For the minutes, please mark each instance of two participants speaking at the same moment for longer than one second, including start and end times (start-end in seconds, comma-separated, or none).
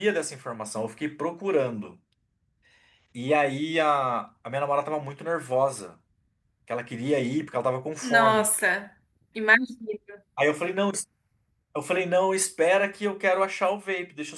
none